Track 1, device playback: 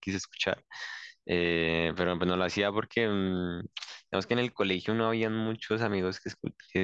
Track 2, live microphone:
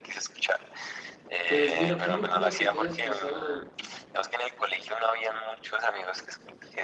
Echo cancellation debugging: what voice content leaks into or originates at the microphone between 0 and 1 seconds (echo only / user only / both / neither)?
echo only